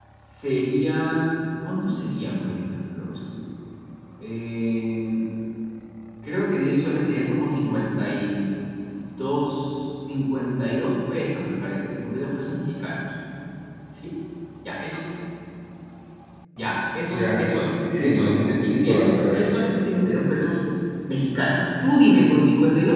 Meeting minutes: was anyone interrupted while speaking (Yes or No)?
Yes